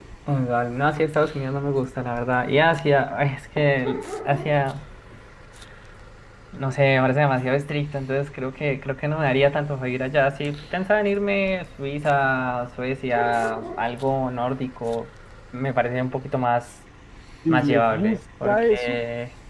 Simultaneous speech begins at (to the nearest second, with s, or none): 17 s